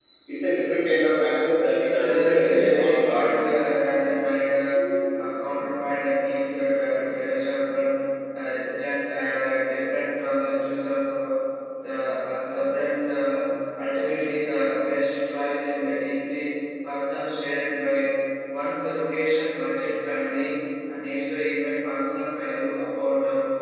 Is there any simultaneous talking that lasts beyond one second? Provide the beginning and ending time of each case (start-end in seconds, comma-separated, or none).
1.8-3.3